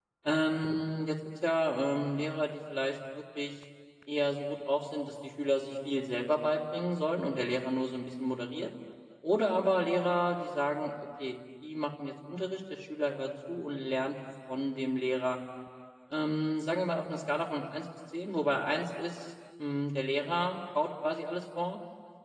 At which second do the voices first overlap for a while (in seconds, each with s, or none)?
none